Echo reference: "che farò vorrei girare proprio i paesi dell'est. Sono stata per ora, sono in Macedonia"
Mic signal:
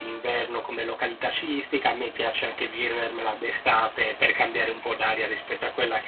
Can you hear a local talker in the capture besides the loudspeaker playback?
Yes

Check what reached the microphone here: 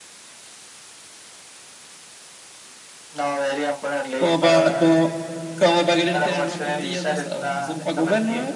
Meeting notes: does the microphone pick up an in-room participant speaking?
Yes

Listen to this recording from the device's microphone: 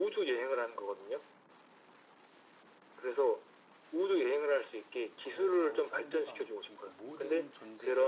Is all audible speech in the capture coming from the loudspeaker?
No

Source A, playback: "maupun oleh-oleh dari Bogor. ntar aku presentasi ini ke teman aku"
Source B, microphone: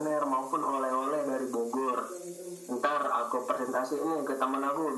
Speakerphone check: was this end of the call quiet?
No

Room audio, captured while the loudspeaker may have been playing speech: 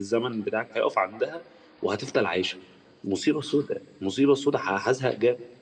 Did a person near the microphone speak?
Yes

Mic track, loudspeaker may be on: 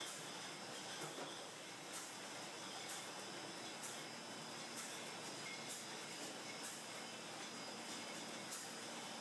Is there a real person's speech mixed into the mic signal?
No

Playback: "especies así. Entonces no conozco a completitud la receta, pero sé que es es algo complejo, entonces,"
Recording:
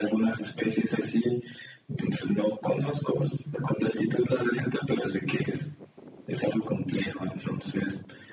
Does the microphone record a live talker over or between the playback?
No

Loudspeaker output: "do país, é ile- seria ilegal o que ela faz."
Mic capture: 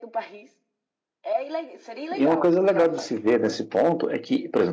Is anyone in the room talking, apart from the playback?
Yes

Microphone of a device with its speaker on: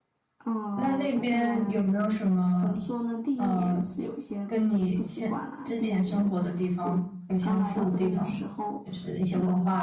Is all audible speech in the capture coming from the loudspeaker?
No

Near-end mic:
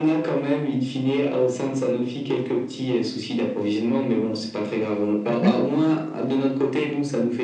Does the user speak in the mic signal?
Yes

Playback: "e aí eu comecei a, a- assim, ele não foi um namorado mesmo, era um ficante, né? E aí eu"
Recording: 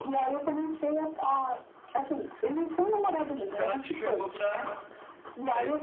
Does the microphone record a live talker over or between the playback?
Yes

